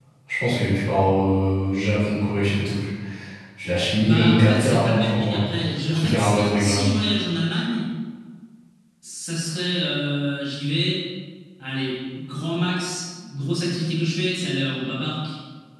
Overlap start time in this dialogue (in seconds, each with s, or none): 4.0 s